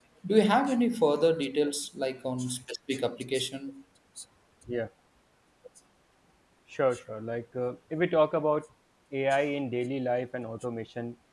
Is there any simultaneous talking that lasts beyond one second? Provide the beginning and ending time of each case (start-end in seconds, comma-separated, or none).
none